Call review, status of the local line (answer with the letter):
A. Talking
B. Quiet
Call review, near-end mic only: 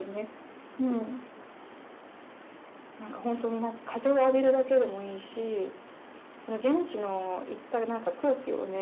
B